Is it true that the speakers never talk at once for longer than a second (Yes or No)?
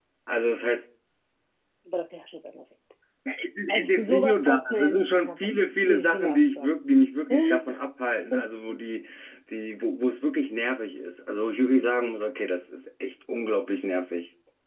No